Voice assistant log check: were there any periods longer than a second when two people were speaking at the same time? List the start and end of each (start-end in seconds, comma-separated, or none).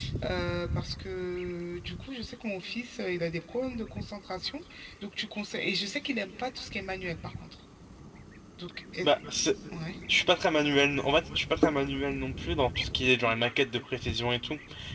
none